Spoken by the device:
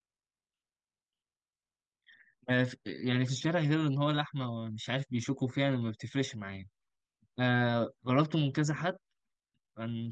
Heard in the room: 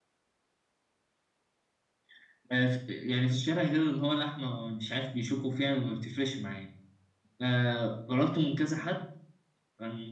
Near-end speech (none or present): none